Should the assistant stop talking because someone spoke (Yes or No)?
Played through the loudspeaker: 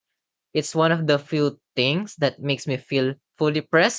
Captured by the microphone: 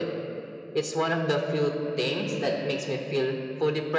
No